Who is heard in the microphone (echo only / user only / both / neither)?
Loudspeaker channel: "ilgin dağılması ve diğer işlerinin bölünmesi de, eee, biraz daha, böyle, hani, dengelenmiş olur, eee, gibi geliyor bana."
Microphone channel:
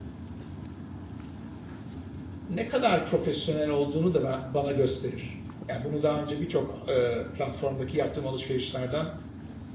user only